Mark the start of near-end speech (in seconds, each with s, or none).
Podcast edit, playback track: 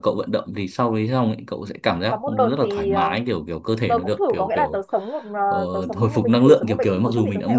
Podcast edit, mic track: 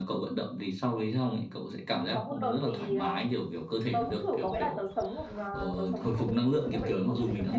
none